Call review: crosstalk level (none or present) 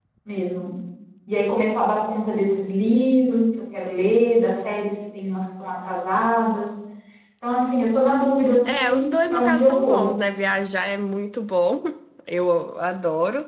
present